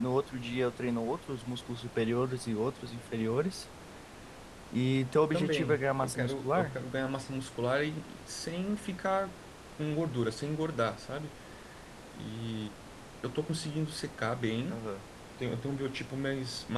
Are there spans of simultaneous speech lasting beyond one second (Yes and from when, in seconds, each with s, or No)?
Yes, from 5.3 s